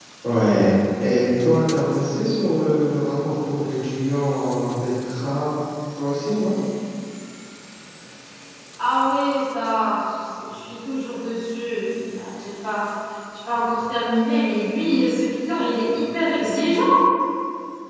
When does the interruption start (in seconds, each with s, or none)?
none